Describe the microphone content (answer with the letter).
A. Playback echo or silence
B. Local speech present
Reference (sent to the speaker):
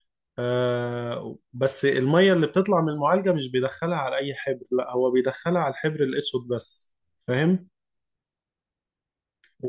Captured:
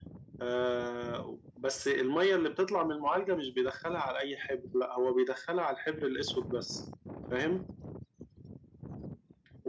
A